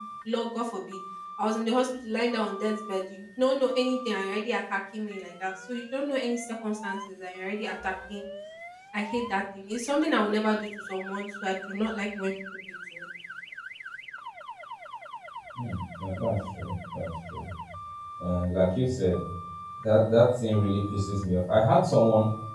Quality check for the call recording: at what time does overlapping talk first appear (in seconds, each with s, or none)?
none